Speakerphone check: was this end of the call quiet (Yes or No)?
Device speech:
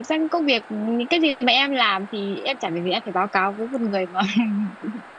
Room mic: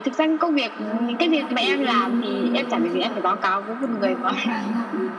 No